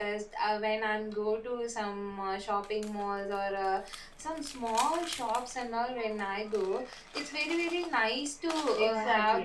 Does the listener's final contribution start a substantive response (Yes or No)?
Yes